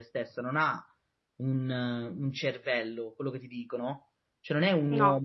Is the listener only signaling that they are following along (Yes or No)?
Yes